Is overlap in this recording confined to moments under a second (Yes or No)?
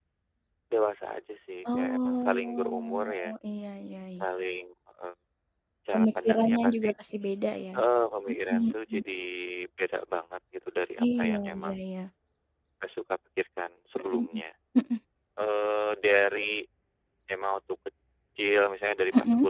No